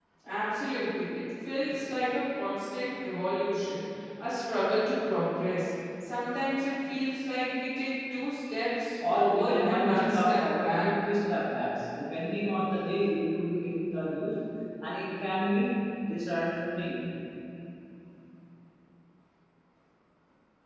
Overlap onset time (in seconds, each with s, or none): 9.0 s